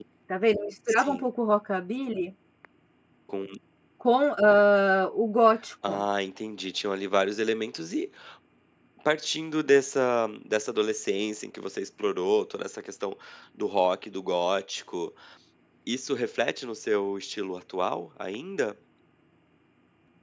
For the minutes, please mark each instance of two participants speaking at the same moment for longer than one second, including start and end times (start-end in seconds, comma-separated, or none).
none